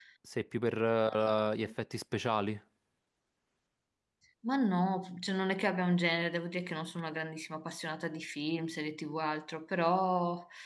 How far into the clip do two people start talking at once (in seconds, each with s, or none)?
none